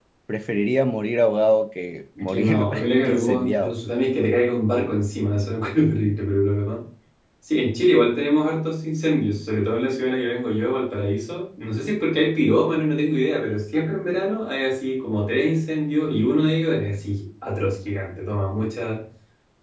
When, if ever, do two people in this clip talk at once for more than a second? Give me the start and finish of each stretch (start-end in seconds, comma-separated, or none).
2.2-3.7